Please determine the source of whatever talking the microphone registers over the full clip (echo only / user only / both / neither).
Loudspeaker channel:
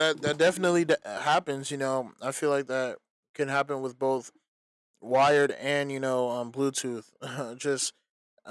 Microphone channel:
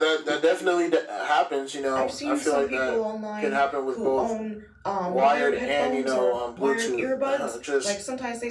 both